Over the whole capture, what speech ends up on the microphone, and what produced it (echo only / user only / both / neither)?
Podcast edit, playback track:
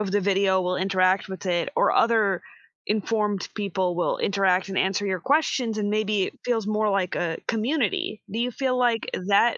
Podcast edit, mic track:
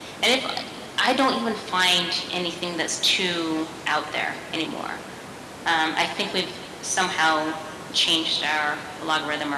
user only